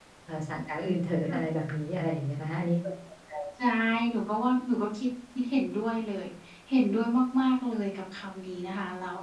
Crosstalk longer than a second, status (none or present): none